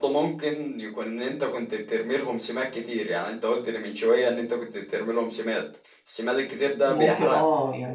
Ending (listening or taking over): taking over